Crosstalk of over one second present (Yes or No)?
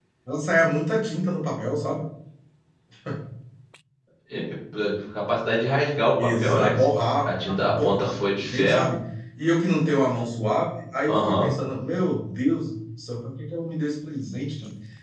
Yes